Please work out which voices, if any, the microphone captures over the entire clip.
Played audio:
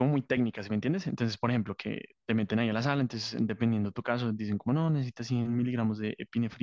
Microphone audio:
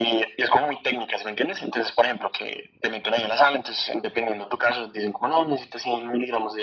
echo only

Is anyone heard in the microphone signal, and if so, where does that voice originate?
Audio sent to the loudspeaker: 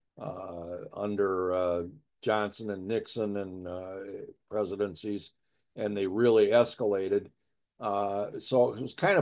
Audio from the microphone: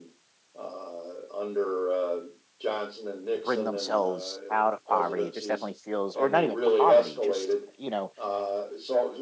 both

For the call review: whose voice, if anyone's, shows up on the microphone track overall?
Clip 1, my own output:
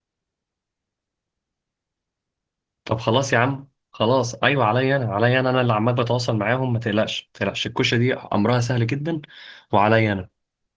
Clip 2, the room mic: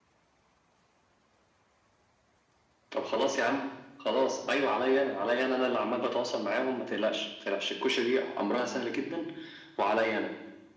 echo only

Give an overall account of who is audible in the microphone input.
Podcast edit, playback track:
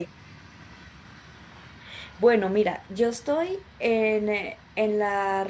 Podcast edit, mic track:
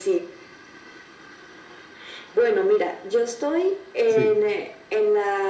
both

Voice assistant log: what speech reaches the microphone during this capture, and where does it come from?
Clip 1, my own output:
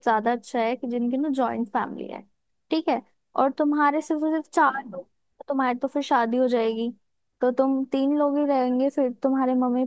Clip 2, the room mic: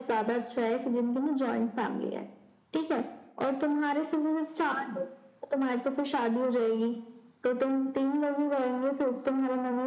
echo only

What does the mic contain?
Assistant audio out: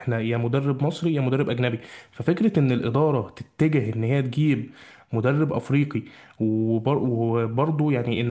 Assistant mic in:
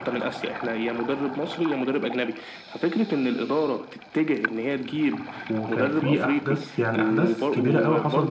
both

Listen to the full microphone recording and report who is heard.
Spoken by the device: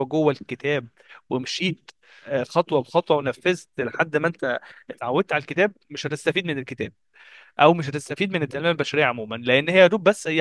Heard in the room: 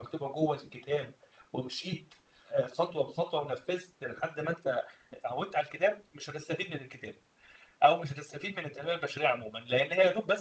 echo only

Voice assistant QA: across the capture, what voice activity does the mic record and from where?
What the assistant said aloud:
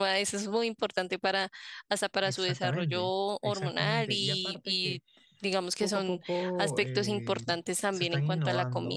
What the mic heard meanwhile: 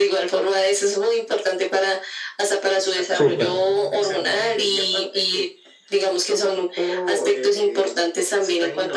both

